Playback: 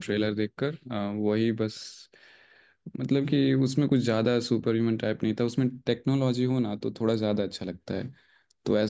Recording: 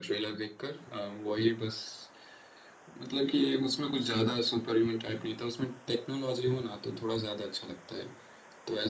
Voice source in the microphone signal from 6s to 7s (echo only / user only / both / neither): echo only